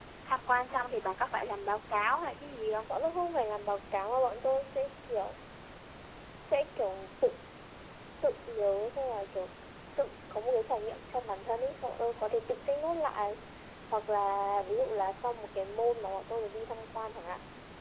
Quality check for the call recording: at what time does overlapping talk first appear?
none

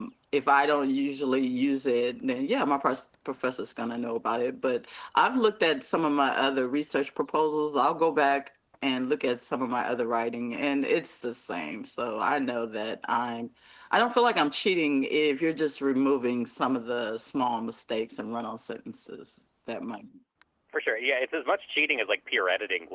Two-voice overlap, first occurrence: none

